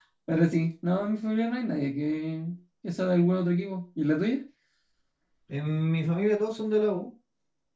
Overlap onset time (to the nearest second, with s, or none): none